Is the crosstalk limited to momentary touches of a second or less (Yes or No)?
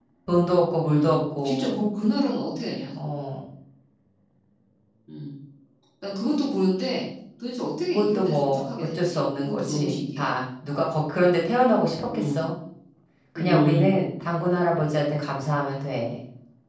No